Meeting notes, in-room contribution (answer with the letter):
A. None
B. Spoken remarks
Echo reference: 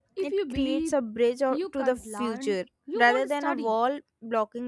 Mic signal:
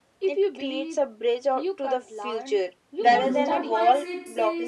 B